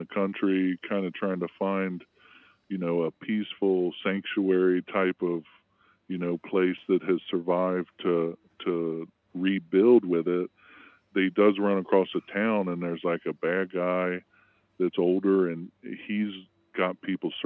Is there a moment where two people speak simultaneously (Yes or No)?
No